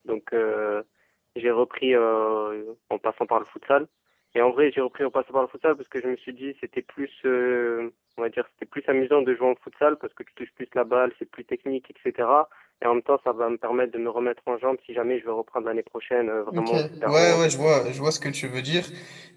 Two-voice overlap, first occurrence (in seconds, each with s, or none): 16.5 s